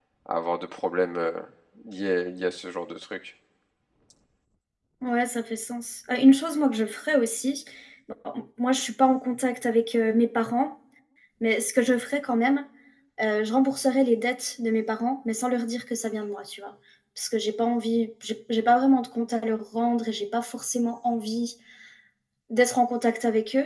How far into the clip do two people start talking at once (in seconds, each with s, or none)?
none